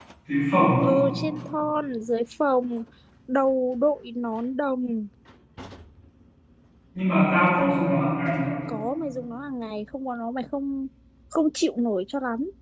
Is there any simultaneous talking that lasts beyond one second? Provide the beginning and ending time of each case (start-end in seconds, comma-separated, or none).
none